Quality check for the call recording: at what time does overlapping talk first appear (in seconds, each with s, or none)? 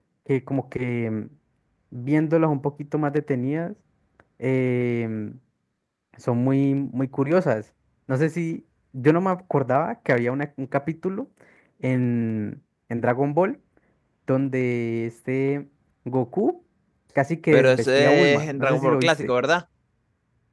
17.5 s